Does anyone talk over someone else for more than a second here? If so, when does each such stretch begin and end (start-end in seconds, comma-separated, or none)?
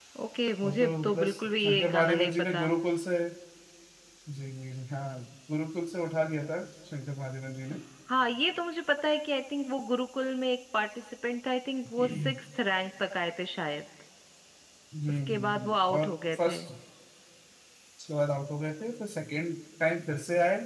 0.6-2.7, 15.3-16.6